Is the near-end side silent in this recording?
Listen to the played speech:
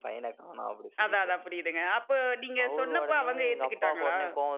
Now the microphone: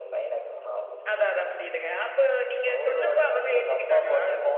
Yes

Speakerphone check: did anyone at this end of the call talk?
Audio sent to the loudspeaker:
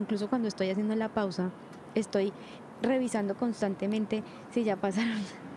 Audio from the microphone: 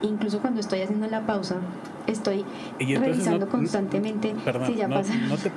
Yes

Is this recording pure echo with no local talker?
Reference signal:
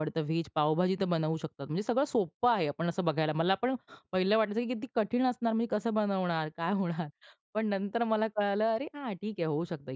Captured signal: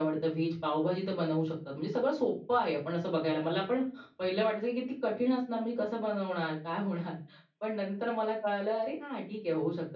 Yes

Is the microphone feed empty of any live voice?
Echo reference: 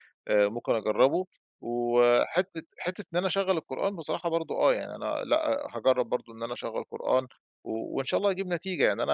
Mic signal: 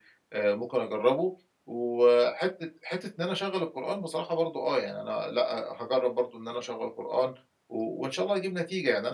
Yes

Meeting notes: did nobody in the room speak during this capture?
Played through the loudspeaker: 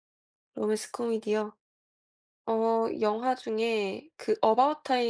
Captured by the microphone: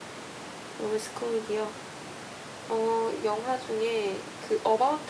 Yes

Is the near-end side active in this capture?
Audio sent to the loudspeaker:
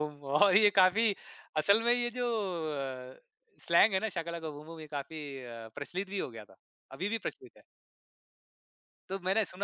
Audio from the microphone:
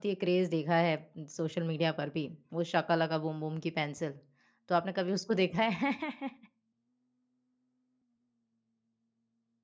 Yes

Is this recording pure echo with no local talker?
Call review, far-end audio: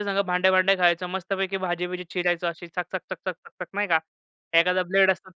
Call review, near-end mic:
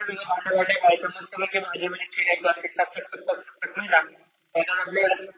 Yes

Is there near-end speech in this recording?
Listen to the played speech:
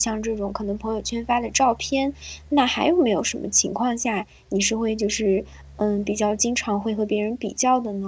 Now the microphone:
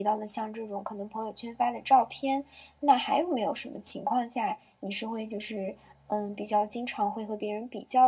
No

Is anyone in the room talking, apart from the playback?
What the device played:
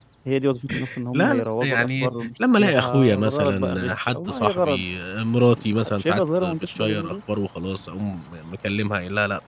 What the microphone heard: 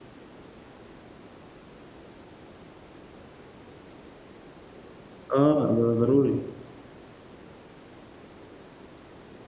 Yes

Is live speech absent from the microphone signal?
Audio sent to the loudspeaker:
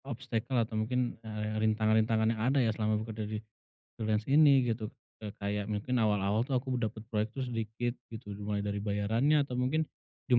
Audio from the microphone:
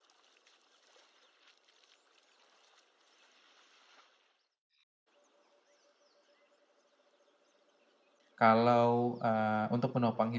No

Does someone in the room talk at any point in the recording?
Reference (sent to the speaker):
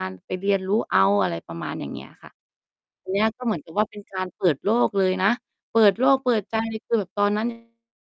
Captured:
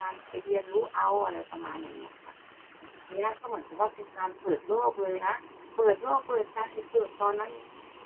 No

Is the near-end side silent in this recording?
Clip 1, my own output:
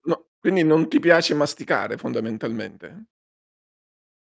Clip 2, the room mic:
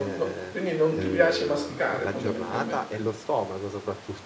No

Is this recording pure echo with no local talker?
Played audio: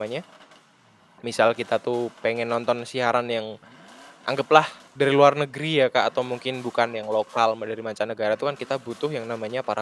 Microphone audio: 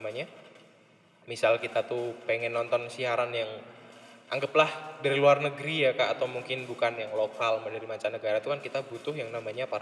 Yes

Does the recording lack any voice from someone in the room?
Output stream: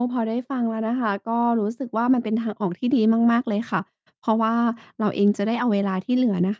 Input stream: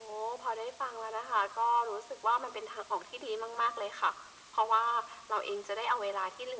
Yes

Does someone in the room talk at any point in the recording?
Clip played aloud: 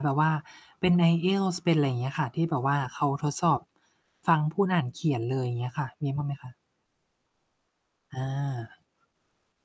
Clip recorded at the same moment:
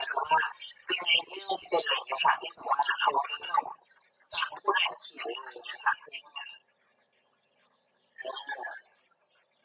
No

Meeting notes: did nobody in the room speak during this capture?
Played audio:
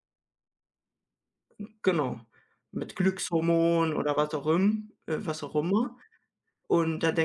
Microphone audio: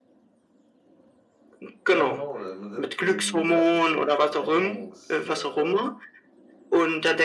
No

